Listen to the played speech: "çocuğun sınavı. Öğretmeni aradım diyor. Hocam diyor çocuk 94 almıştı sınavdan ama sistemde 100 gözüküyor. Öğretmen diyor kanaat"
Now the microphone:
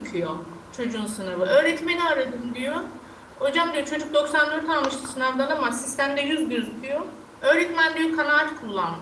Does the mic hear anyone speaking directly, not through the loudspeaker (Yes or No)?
No